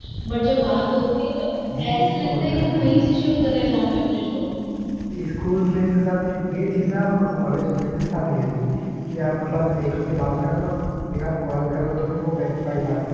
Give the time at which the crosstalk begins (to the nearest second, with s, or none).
2 s